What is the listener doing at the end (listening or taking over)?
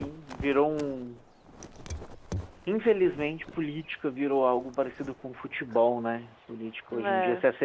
listening